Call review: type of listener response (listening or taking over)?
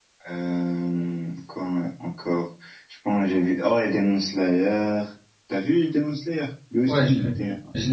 taking over